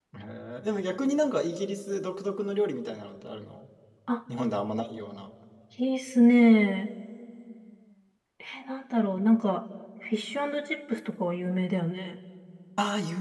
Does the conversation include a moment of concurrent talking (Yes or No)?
No